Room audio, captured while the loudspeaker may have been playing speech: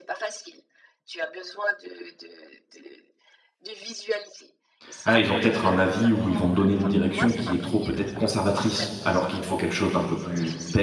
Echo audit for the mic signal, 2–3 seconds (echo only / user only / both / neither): echo only